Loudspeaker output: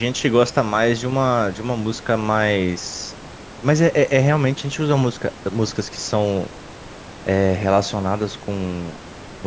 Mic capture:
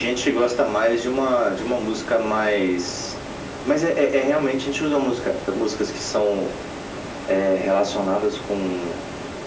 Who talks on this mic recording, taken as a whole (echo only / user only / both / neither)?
echo only